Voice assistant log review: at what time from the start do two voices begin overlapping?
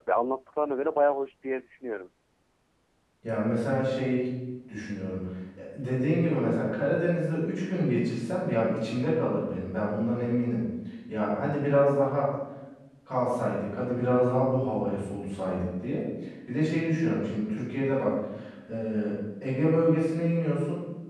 none

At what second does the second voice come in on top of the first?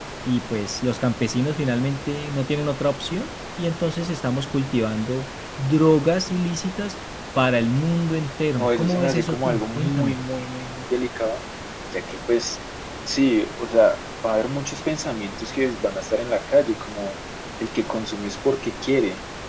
9 s

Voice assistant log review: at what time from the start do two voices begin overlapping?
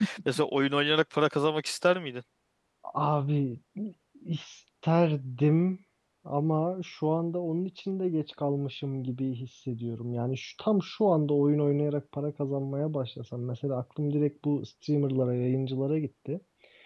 none

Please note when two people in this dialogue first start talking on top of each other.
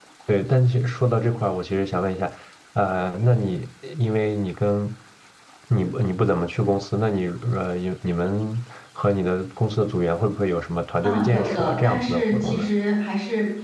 11 s

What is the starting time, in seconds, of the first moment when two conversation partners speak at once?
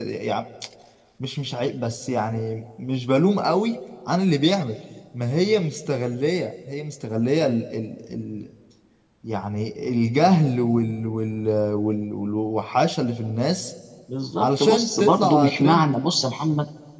14 s

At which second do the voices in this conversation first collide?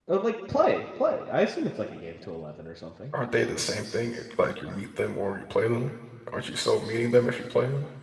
none

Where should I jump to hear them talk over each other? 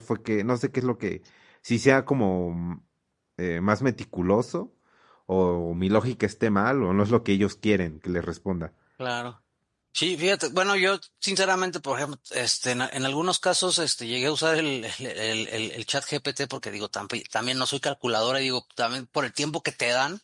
none

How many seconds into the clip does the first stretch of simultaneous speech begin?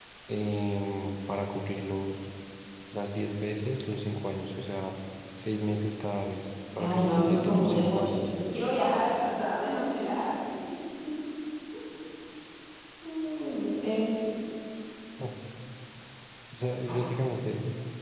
7 s

